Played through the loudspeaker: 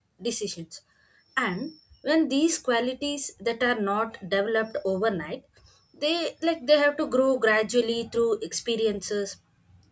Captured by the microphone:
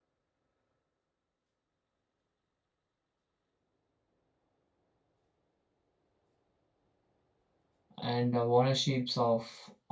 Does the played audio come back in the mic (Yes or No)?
No